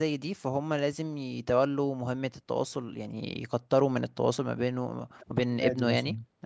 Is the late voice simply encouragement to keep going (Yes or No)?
Yes